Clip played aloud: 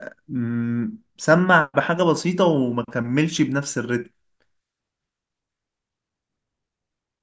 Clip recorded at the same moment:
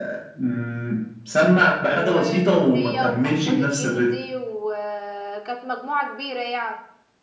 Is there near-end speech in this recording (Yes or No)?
Yes